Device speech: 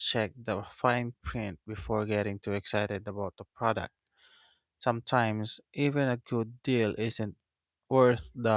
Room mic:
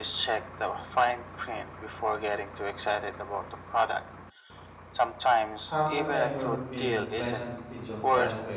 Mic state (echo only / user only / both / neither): both